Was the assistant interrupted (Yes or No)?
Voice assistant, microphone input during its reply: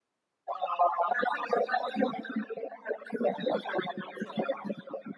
No